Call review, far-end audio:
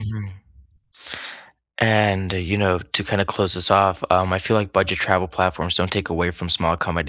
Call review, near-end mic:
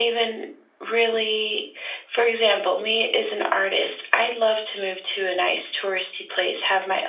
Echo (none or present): none